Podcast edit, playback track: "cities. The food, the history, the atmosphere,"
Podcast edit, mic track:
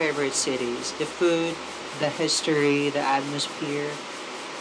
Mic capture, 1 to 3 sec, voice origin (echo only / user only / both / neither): echo only